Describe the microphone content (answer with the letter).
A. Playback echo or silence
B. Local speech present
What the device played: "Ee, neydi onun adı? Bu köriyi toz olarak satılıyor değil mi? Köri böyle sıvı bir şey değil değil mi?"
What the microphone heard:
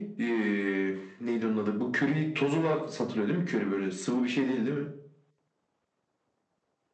A